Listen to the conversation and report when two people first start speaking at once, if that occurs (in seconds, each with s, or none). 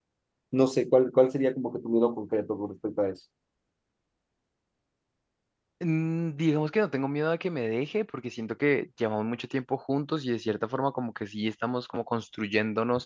none